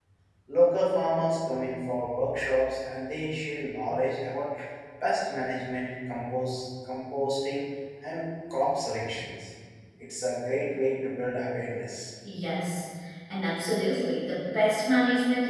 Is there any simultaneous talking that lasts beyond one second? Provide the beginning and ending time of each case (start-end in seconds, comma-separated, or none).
none